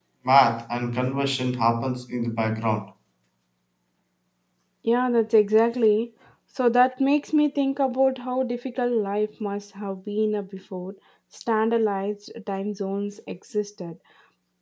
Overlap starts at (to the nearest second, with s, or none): none